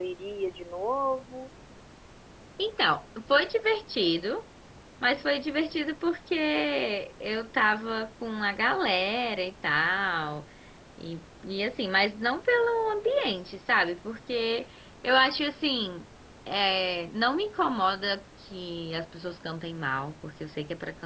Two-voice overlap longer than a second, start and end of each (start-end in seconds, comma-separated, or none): none